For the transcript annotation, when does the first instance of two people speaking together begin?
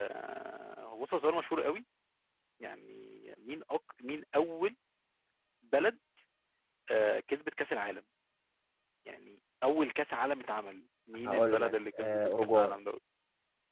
11 s

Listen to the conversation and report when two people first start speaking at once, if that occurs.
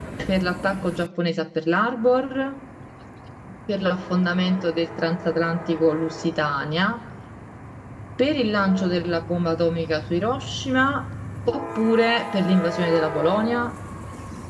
none

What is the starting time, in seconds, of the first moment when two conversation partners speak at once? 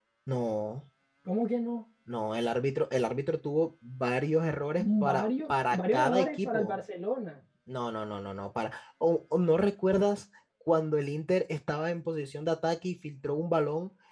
5 s

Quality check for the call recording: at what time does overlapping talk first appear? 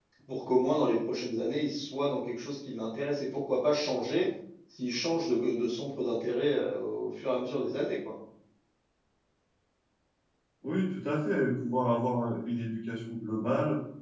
none

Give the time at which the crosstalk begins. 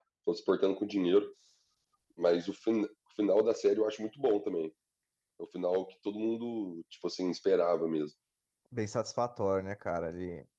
none

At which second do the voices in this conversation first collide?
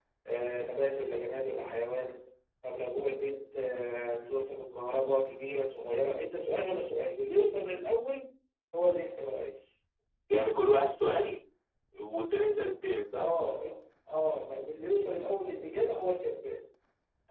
none

